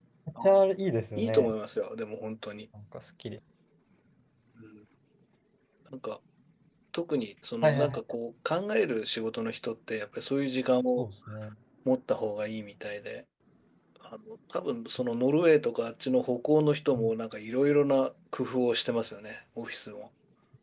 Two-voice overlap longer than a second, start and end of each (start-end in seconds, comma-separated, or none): none